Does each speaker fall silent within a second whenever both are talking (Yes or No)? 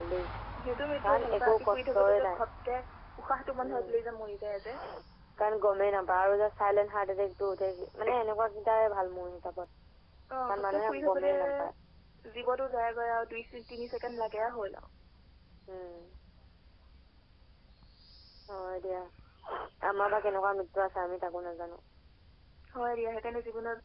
No